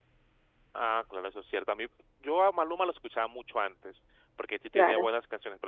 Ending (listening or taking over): listening